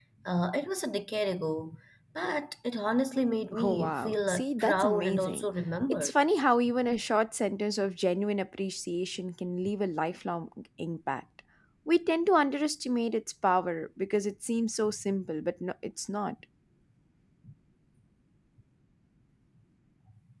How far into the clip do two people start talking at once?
4 s

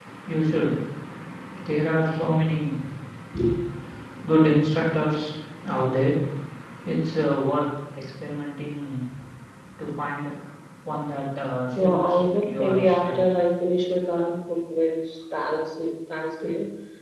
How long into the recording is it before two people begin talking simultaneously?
12 s

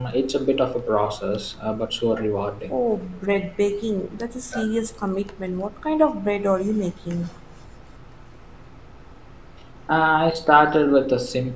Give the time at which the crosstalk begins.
none

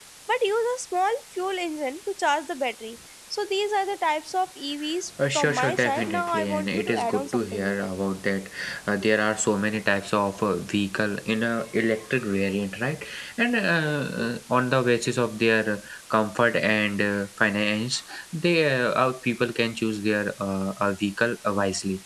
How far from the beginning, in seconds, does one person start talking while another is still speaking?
5 s

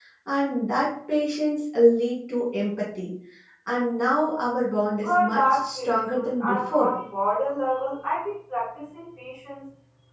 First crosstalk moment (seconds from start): 5 s

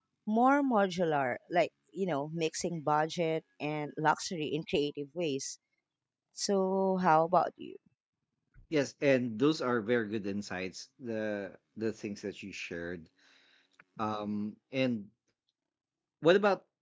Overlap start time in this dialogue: none

